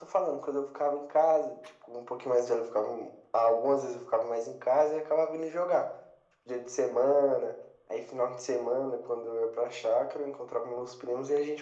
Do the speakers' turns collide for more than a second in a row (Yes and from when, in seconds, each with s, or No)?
No